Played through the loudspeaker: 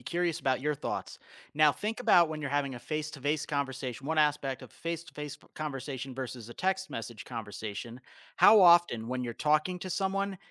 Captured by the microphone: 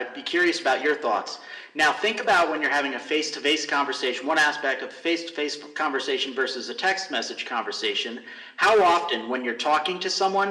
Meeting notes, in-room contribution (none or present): none